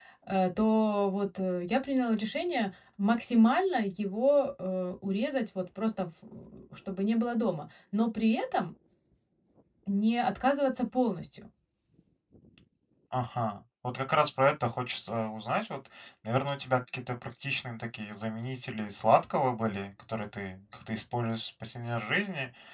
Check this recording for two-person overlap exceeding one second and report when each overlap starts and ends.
none

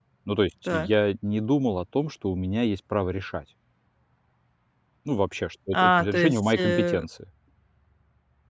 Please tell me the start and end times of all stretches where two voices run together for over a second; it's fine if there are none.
5.7-7.0

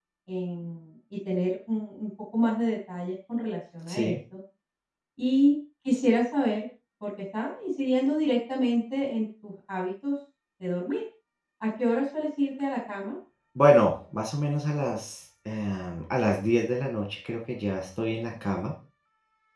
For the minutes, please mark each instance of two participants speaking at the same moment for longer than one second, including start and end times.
none

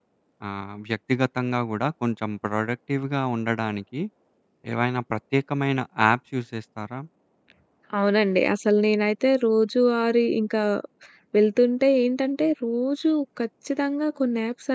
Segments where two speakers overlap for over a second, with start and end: none

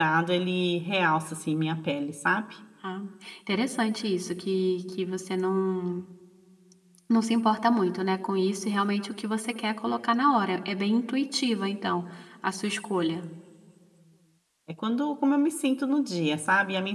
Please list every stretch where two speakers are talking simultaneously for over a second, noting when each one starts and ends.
none

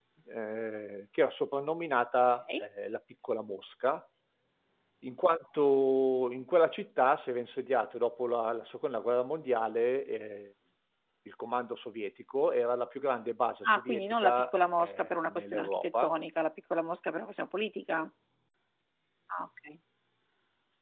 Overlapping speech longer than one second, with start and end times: 13.7-16.1

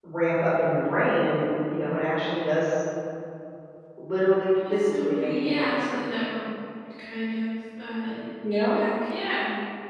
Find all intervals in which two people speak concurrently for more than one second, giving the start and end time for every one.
4.7-6.0

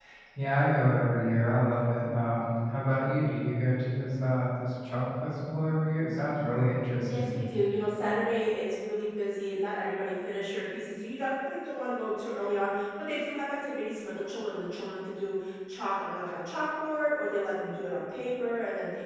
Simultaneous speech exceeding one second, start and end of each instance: none

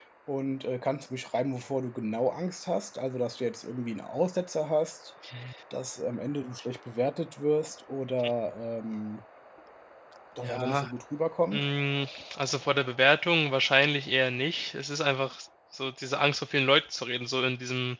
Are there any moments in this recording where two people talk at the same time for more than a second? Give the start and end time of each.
none

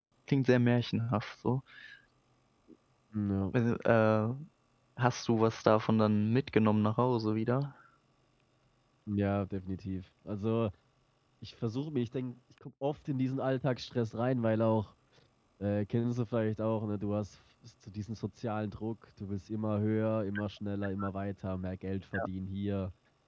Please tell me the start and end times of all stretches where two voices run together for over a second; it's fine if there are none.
none

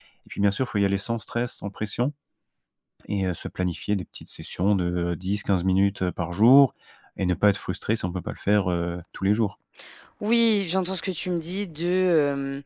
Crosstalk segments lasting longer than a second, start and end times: none

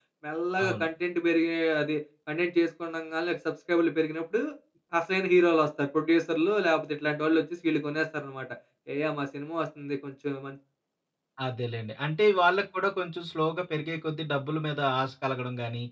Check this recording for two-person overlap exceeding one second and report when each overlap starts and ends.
none

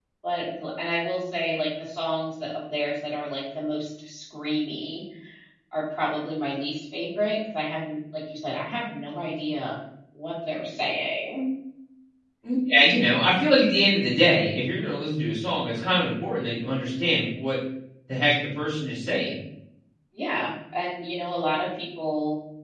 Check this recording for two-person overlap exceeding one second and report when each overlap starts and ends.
none

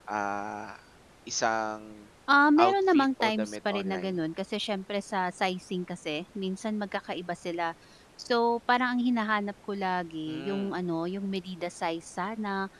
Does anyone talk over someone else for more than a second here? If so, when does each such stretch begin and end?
2.6-4.2

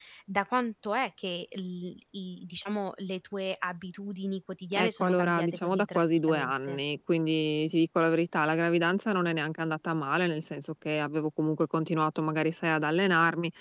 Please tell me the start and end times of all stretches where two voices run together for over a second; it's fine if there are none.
4.7-6.8

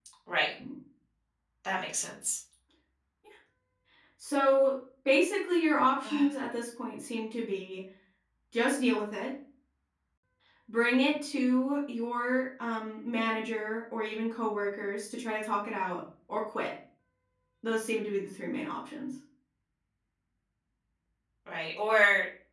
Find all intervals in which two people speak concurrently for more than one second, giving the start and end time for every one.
none

